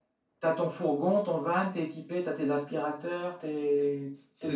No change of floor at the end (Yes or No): No